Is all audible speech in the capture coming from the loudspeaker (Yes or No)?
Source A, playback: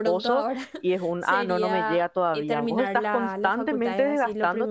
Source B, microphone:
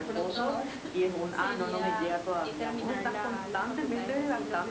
Yes